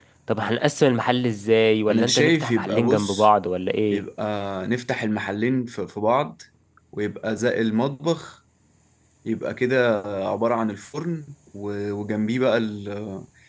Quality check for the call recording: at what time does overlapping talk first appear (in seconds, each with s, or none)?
1.9 s